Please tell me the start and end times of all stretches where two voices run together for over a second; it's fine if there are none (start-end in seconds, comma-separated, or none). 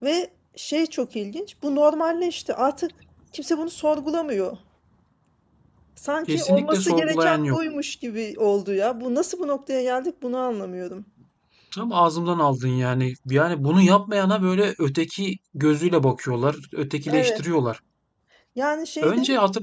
6.3-7.6